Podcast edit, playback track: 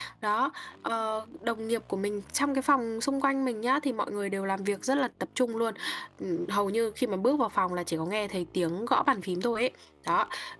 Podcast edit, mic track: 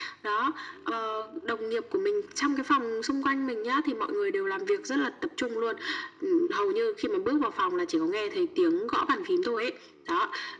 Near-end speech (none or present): none